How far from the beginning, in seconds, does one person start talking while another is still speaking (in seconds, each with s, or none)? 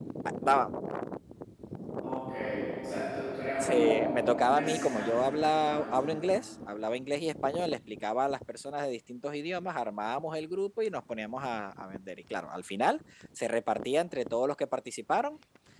3.6 s